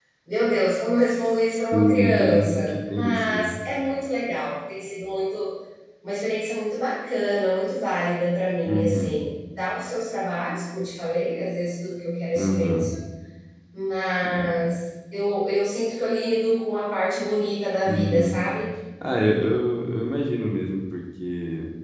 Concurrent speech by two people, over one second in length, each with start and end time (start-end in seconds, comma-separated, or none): 1.7-3.6